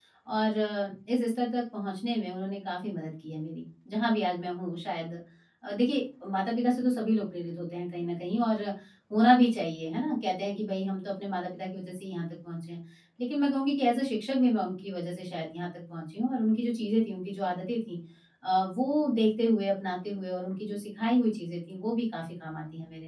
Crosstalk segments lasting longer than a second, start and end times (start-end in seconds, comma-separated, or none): none